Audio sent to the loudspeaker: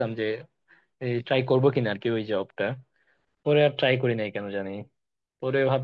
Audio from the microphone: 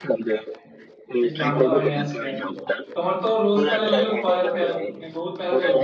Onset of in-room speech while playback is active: 1.2 s

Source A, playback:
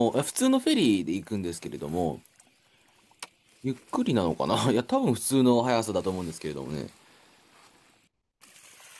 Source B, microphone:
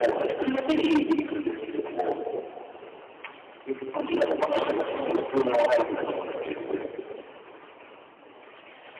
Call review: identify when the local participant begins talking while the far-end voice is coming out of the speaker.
none

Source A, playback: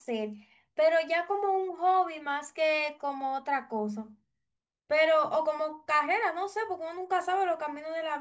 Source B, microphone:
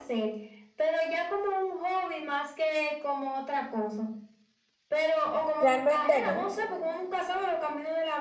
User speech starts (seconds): 5.6 s

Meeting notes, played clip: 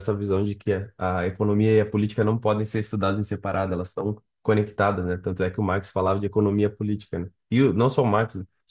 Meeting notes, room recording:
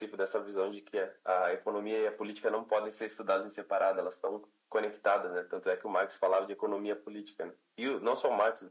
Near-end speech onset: none

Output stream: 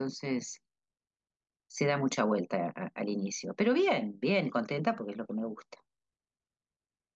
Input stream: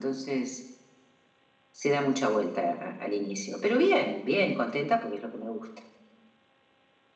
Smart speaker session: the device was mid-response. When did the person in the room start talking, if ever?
none

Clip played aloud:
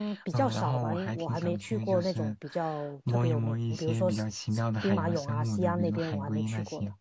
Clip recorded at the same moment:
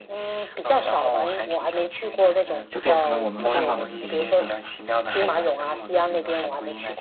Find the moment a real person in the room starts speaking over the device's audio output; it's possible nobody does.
2.7 s

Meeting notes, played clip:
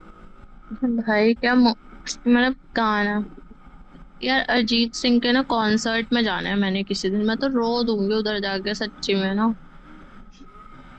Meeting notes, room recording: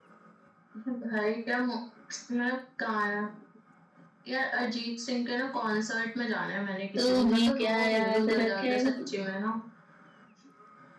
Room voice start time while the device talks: 7.0 s

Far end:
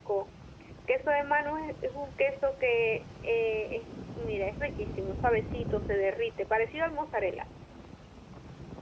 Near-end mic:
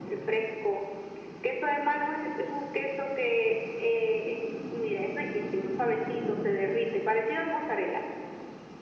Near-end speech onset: none

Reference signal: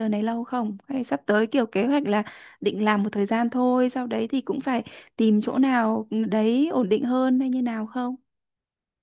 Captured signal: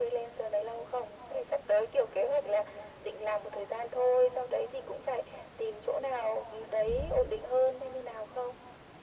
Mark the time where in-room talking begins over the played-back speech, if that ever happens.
6.8 s

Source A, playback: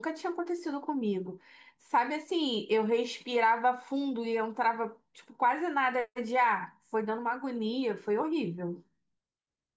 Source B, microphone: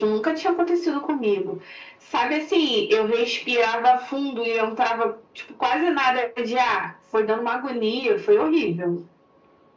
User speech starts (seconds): none

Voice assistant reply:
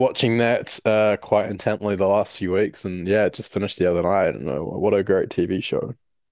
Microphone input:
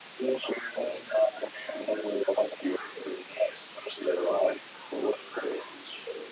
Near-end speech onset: none

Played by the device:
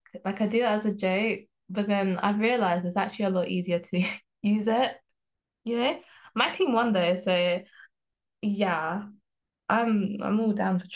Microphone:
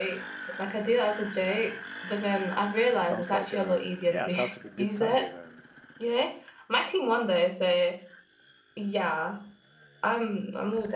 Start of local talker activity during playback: 3.0 s

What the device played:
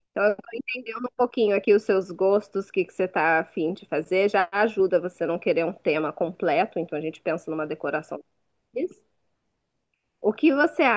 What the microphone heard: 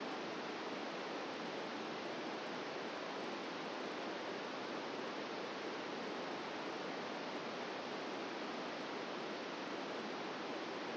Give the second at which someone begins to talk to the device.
none

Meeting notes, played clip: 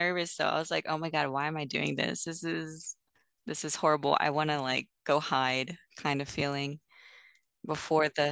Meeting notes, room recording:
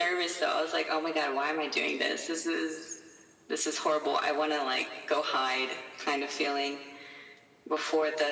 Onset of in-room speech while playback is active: none

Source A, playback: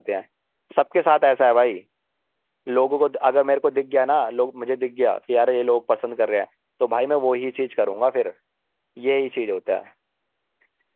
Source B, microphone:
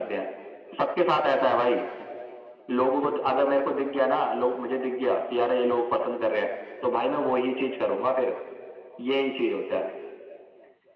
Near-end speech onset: none

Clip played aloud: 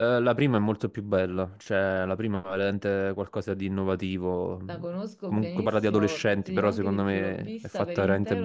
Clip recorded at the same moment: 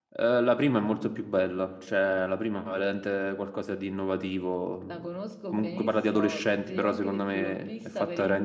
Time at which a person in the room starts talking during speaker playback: none

